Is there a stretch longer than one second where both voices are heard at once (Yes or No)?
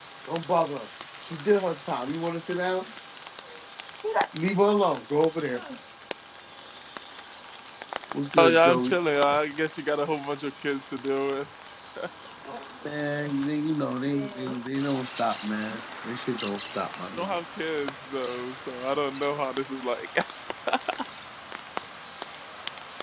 No